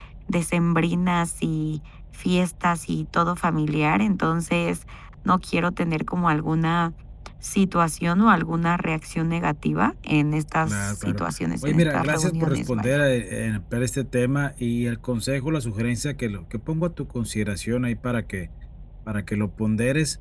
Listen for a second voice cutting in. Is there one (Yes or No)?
Yes